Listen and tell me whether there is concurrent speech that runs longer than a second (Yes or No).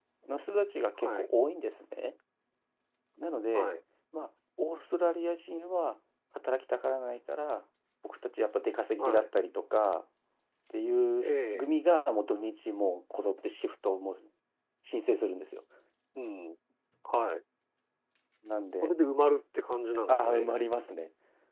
No